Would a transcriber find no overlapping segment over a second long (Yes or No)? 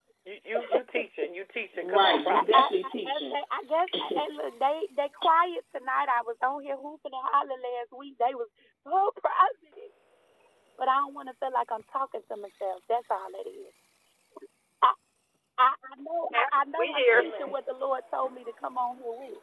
No